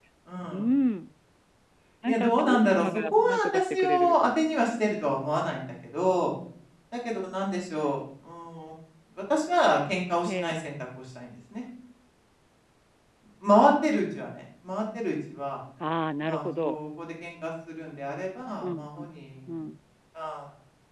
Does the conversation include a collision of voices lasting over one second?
Yes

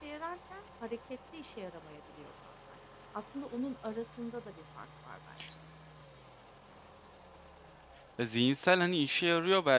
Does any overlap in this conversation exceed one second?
No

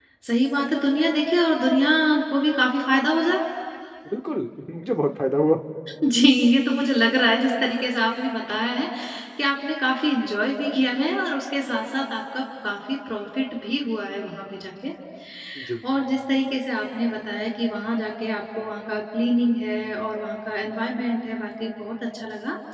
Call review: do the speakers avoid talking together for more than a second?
Yes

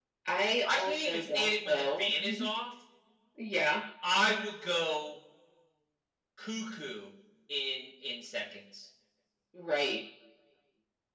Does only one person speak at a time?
No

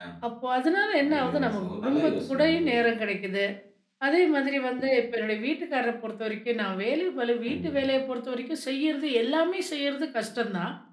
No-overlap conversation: No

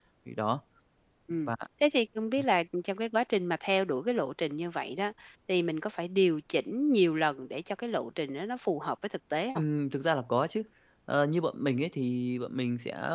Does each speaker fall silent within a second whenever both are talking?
Yes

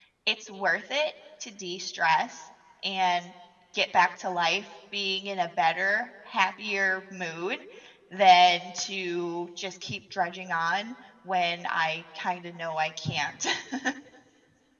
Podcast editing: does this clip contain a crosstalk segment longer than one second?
No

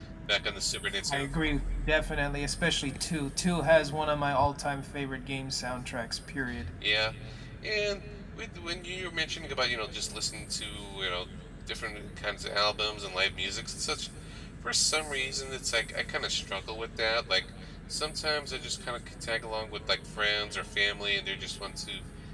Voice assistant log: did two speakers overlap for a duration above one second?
No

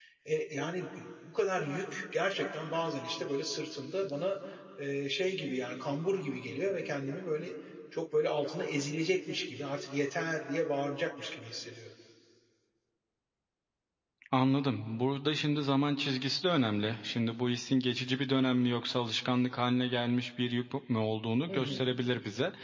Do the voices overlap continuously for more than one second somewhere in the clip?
No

